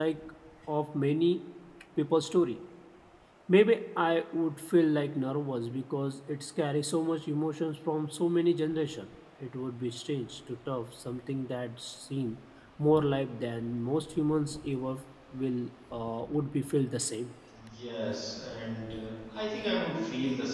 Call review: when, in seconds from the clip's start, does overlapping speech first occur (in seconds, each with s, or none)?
none